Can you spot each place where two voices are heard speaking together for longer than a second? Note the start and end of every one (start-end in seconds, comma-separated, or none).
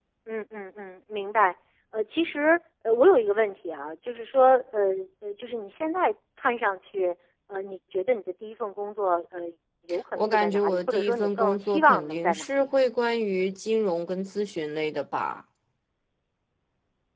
10.2-12.7